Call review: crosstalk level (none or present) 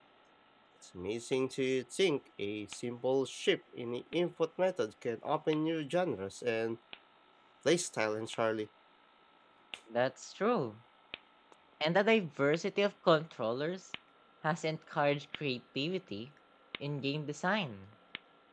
none